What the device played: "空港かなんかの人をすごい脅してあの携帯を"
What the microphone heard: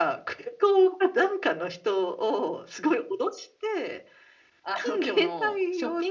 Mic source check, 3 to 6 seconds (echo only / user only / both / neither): both